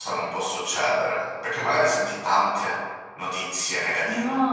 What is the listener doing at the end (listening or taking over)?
taking over